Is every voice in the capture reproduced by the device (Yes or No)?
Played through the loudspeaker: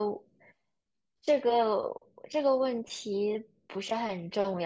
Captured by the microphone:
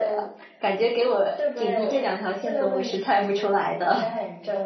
No